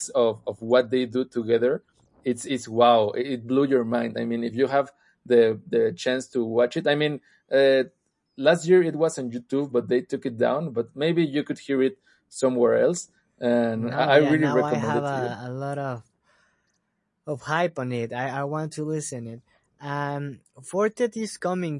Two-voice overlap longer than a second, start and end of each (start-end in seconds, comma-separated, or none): 13.7-15.3